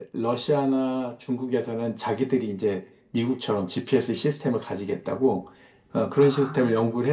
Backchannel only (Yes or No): Yes